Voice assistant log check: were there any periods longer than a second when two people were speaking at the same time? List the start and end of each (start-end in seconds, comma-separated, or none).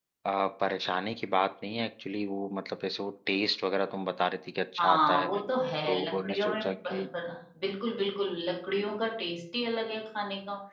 5.8-7.0